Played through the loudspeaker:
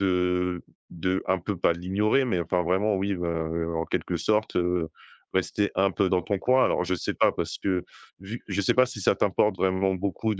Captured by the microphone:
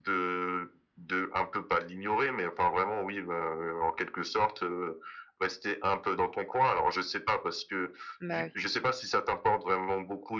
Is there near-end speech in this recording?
Yes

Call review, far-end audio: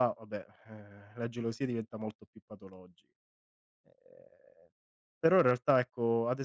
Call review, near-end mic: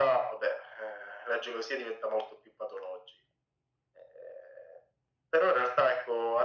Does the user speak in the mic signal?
No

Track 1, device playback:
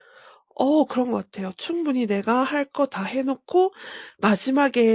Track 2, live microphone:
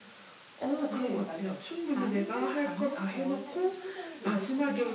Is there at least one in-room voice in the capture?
Yes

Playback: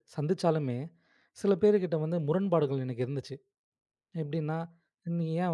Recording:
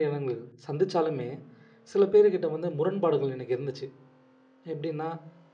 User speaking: No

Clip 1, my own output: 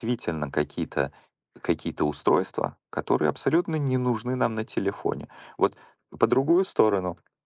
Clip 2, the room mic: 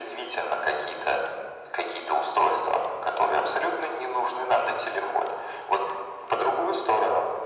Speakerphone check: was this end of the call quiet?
Yes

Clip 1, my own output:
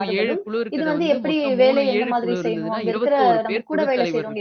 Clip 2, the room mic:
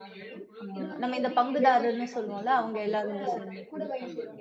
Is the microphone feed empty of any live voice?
No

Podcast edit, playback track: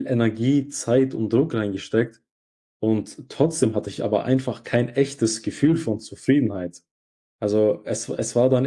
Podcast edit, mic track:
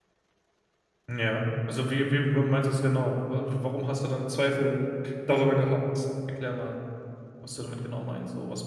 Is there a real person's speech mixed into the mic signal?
Yes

